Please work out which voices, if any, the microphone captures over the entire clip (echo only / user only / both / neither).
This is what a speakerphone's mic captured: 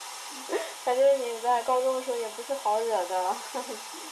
echo only